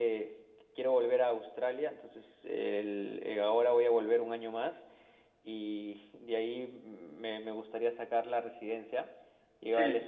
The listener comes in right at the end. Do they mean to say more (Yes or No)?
No